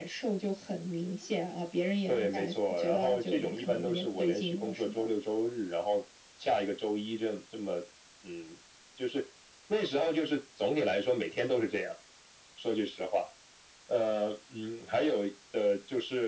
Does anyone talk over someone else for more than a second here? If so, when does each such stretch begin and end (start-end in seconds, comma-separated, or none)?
2.1-5.1